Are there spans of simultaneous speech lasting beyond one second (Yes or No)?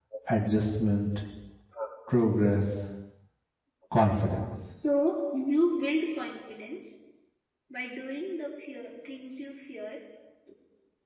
No